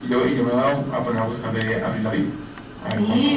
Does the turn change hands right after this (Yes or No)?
Yes